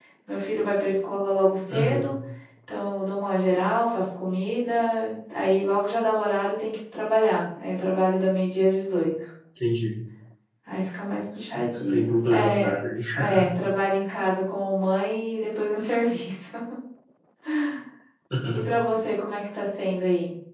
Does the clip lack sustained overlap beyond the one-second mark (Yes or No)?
No